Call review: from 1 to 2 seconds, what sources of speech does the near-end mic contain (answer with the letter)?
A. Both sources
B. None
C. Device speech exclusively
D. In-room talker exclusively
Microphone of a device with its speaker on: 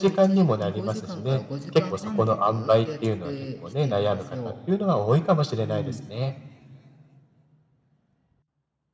A